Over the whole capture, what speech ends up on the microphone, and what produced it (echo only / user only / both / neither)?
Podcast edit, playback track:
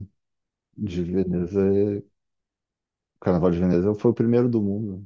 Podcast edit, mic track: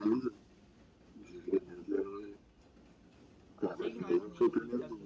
both